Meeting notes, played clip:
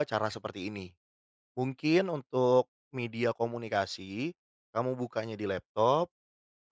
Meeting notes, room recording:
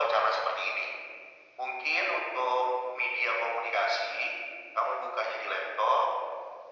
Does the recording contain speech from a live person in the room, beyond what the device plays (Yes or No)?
No